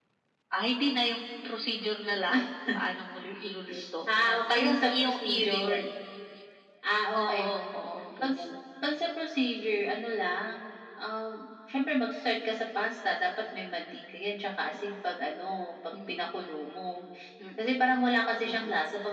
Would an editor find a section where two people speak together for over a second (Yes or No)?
Yes